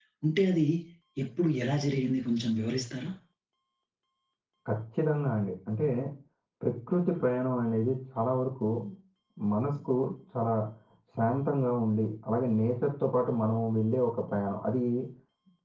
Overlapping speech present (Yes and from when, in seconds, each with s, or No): No